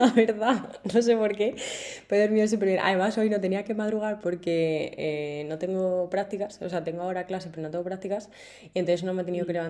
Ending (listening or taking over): listening